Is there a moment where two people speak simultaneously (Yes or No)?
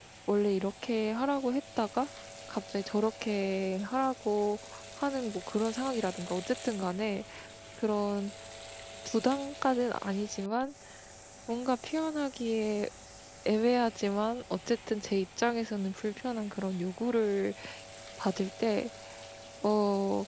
No